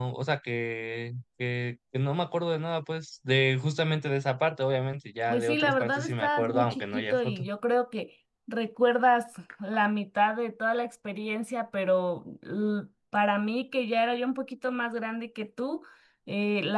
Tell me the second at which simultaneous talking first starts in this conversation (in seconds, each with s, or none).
5.3 s